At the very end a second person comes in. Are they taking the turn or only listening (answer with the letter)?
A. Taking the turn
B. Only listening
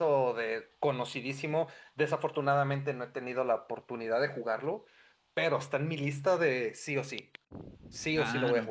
A